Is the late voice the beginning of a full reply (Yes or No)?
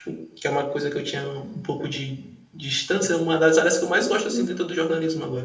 No